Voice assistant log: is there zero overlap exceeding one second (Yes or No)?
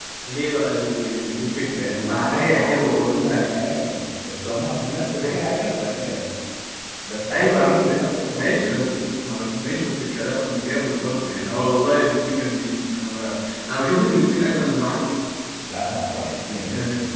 No